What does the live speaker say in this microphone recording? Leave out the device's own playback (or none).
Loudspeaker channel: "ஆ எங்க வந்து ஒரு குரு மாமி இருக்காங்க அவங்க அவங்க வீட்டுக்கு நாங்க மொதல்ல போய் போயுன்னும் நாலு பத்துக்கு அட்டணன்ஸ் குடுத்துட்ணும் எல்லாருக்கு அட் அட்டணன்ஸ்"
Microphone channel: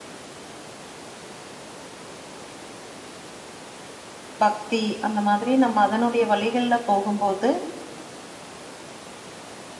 பக்தி அந்த மாதிரி நம்ம அதனுடைய வழிகள்ல போகும்போது